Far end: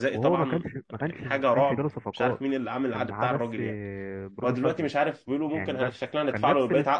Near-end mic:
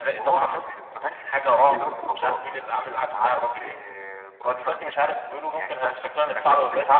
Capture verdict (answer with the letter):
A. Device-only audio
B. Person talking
B